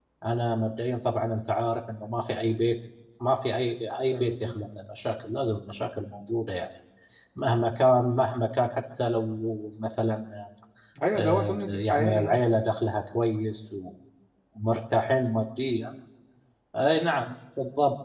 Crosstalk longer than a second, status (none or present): present